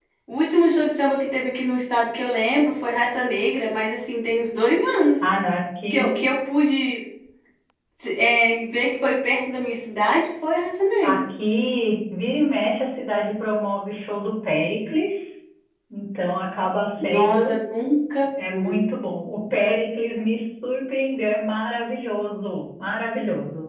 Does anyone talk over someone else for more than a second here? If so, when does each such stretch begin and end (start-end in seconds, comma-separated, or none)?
none